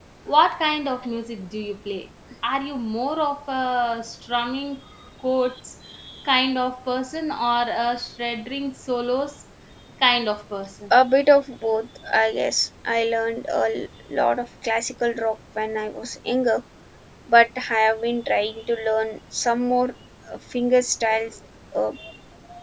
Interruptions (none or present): none